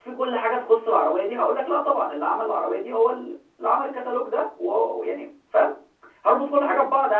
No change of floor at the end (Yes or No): Yes